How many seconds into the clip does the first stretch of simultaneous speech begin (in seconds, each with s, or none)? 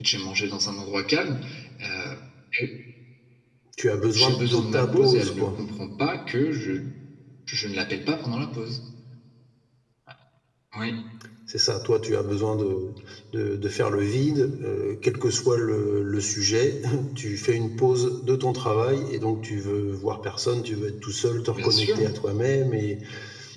4.2 s